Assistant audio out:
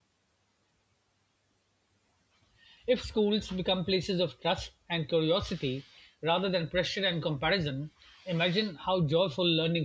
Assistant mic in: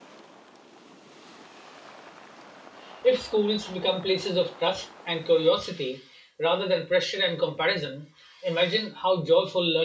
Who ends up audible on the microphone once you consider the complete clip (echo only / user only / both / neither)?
echo only